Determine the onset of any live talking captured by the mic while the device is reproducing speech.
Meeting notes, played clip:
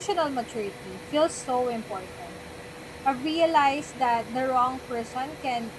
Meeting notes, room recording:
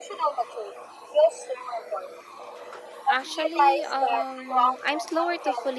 3 s

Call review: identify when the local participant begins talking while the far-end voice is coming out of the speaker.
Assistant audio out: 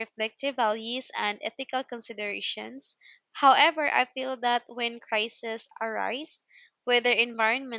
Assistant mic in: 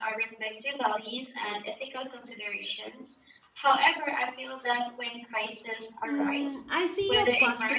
6 s

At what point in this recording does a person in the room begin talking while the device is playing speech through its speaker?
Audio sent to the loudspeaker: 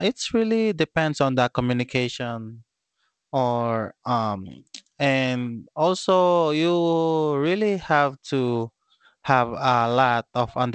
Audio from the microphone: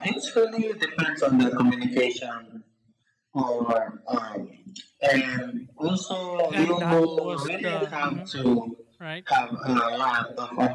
6 s

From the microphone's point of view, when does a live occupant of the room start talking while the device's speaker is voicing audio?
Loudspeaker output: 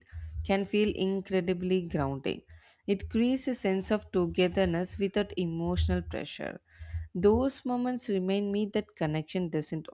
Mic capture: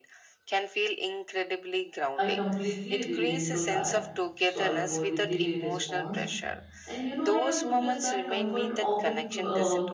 2 s

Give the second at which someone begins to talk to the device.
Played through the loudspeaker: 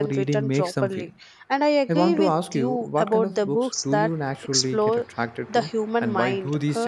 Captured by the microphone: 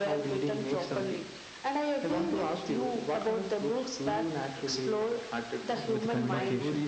6 s

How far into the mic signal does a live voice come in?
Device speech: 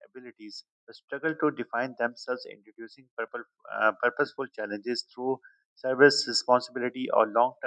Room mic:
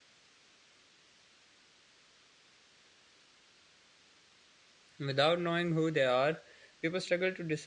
5 s

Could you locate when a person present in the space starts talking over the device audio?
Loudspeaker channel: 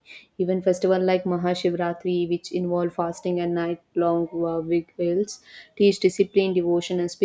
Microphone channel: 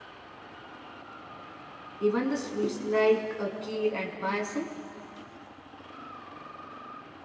2 s

